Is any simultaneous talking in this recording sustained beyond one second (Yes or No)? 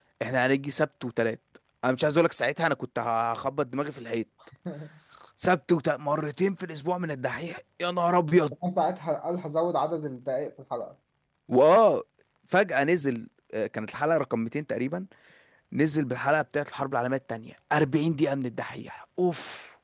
No